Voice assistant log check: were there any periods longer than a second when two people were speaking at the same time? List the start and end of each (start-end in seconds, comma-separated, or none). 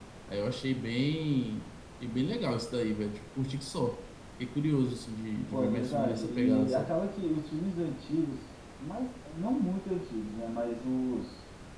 5.5-6.9